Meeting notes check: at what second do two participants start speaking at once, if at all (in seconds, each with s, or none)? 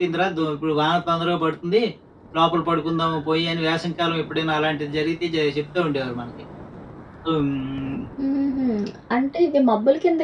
none